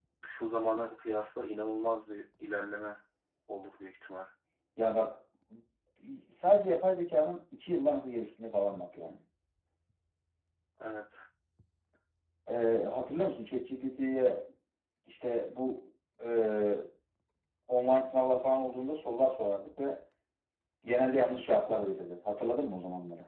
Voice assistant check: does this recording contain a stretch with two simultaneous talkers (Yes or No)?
No